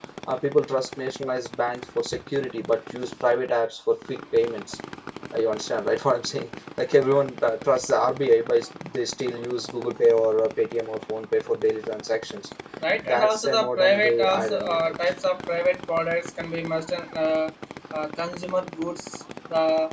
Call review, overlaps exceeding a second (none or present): present